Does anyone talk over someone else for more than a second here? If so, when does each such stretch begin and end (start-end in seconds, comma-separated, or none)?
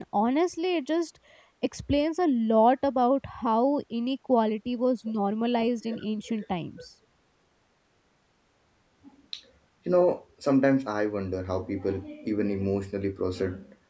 none